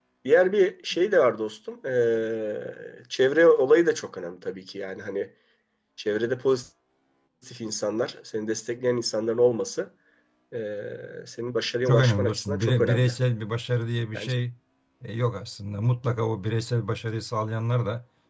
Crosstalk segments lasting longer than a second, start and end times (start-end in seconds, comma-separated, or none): 11.9-13.1